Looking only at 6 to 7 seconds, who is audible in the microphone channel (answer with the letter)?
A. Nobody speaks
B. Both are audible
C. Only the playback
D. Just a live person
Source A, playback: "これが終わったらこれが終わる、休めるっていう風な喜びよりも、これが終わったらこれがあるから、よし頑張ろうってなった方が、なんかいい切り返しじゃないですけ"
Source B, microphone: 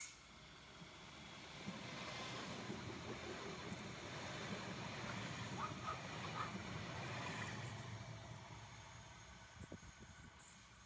A